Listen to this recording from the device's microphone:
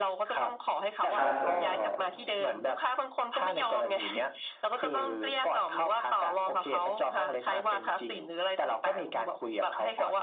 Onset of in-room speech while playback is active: 1 s

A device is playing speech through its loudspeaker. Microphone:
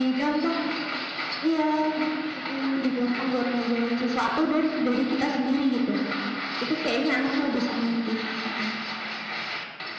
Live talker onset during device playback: none

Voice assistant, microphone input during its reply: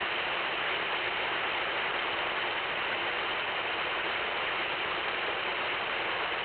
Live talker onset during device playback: none

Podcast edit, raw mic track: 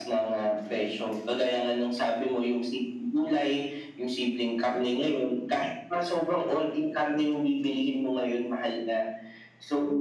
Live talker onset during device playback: none

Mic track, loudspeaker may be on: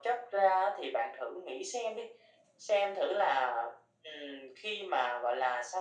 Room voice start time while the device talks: none

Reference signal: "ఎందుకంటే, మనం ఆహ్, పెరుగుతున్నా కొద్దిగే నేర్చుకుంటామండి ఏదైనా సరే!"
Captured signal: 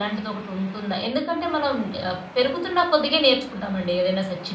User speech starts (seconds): none

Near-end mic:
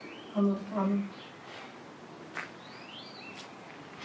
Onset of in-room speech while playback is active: 0 s

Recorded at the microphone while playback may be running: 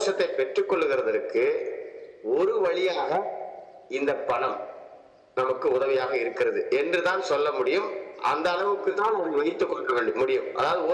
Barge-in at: none

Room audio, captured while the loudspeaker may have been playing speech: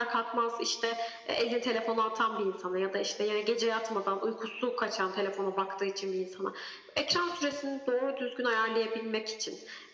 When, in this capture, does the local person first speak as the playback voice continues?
none

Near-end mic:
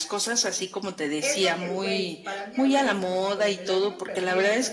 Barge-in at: 1 s

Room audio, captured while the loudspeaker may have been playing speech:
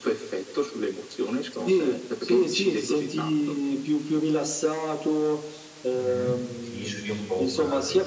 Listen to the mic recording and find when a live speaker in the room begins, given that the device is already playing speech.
6 s

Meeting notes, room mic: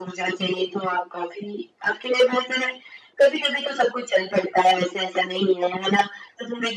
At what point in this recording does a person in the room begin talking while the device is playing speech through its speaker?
none

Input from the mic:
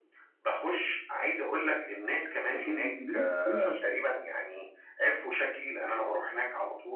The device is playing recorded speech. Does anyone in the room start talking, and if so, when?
3 s

